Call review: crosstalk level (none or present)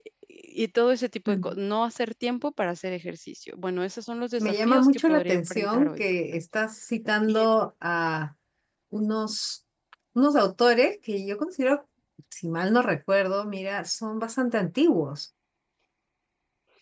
present